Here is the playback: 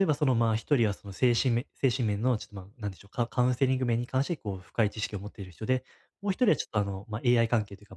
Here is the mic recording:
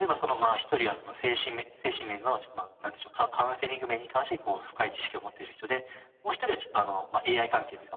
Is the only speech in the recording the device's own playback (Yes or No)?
Yes